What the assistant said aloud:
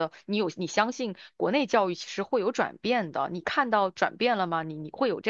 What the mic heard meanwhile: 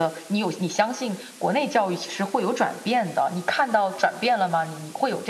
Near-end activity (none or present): none